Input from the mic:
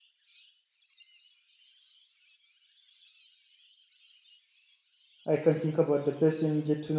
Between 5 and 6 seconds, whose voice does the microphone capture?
user only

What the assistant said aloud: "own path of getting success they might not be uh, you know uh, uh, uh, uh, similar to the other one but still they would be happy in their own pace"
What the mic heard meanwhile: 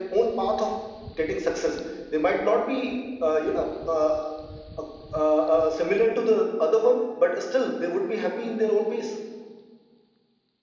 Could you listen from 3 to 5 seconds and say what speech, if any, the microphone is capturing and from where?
echo only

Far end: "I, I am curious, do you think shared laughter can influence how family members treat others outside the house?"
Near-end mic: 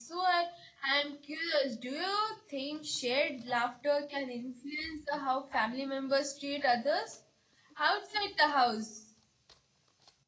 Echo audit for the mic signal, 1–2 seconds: echo only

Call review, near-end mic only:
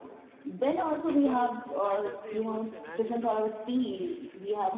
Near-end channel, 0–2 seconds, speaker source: both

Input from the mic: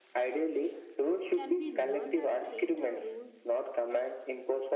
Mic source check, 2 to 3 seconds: both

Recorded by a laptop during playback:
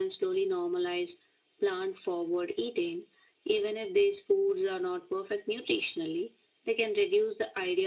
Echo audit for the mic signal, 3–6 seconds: echo only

